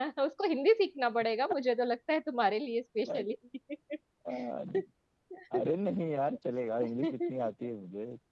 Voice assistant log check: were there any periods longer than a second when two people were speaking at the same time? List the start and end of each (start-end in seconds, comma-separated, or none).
none